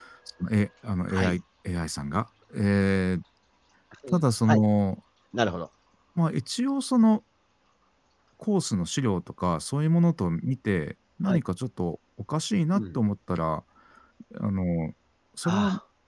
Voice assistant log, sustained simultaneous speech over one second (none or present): none